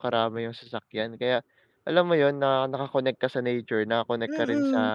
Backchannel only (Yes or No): No